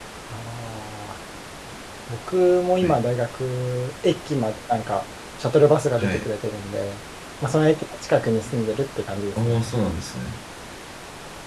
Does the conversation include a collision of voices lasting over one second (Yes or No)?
No